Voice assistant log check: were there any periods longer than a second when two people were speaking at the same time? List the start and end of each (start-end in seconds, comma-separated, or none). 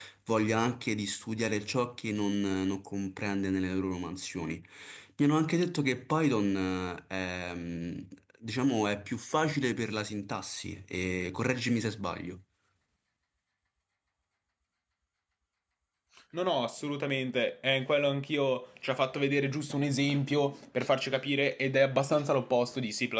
none